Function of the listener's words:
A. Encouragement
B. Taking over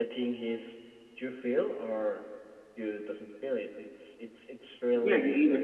B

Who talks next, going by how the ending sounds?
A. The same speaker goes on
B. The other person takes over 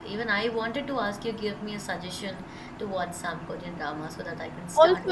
B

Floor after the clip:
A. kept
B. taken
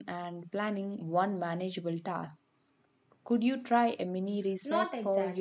B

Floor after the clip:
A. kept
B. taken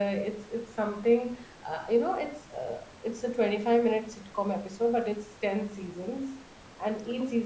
A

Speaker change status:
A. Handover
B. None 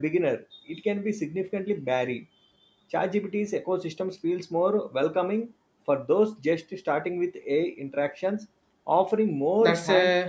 A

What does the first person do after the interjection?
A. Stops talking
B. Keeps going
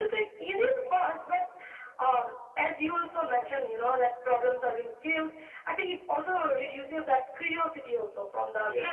B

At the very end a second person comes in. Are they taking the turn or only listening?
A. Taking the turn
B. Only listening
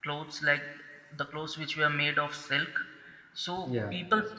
B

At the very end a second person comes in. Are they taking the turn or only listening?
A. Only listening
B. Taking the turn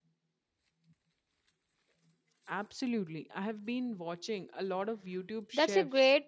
B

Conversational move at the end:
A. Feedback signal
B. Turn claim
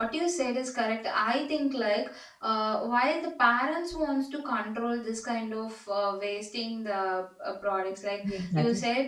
A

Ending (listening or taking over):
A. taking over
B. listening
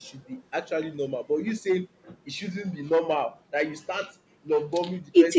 A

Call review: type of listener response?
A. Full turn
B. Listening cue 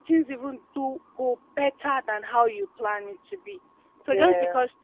B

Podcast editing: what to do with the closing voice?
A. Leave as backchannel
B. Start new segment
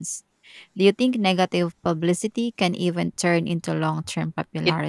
B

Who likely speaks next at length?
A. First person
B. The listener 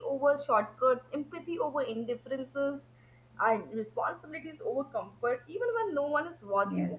B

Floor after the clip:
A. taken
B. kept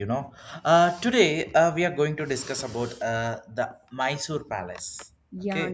A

